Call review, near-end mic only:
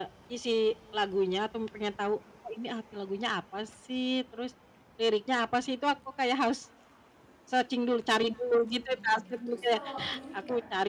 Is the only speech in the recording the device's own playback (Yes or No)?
No